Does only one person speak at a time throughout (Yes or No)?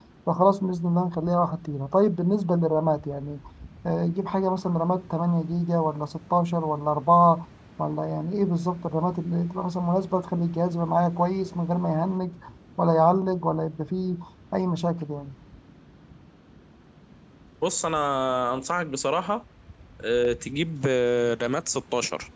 Yes